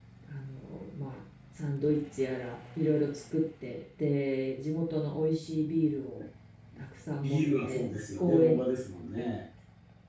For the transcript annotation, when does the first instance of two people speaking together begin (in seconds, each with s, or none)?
7.2 s